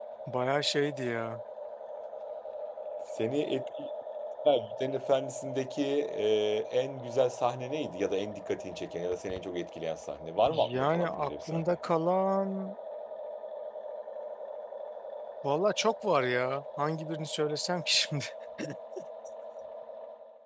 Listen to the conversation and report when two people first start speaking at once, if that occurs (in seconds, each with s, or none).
10.5 s